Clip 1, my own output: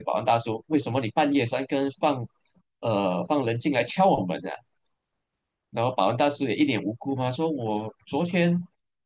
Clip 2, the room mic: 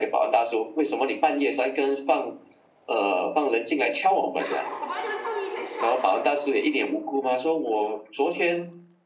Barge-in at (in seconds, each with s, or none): 4.3 s